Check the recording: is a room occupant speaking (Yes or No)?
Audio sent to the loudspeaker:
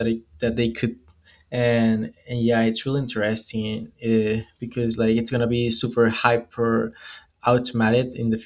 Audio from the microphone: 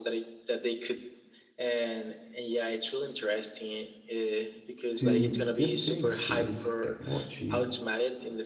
Yes